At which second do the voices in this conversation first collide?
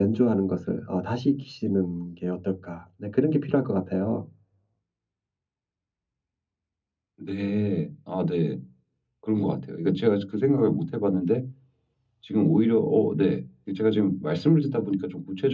none

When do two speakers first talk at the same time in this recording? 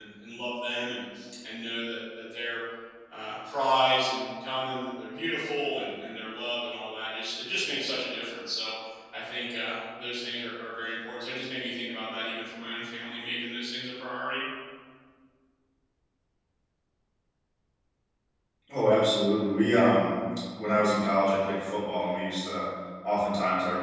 none

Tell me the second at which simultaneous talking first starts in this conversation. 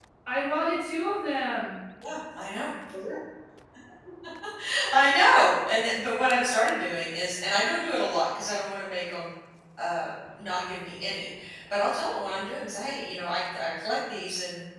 none

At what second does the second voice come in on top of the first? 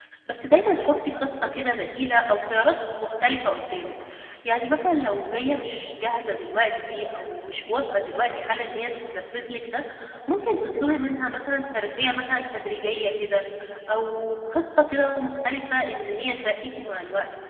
none

